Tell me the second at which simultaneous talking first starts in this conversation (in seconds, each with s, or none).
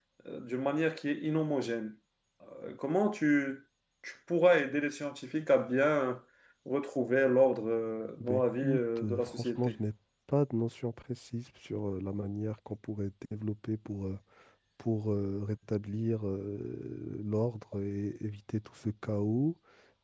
8.2 s